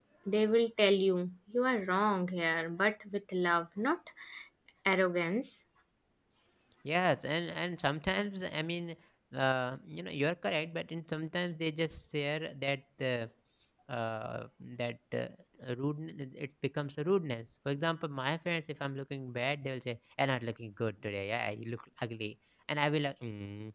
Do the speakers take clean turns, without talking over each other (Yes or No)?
Yes